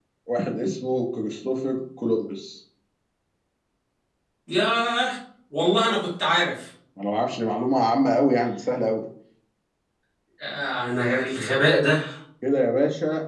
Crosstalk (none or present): none